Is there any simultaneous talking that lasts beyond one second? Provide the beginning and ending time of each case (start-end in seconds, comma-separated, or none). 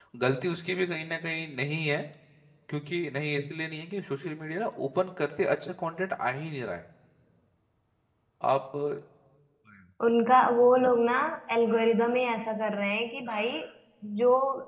none